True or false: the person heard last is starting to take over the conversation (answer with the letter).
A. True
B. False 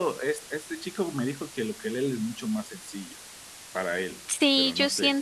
A